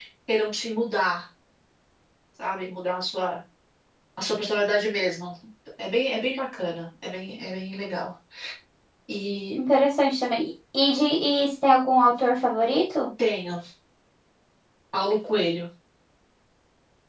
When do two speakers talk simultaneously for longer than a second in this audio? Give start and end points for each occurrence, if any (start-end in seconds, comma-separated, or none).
none